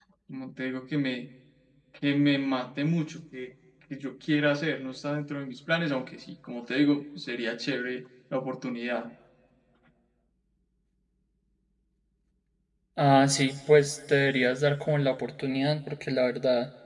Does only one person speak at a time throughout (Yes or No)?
Yes